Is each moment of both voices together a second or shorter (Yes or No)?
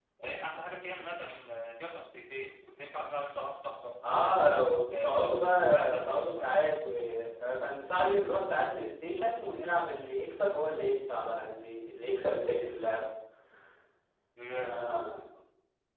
No